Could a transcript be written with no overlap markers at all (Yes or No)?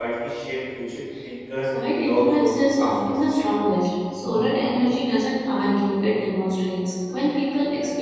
No